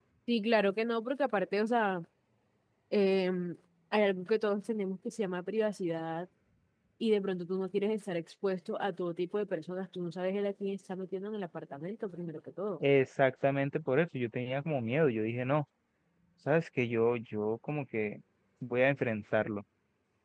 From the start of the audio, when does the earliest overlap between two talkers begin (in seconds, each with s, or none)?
none